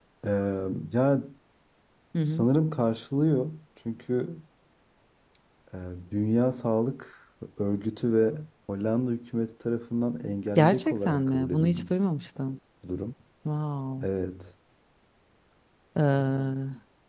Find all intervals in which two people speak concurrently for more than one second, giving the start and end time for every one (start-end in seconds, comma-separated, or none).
10.6-11.9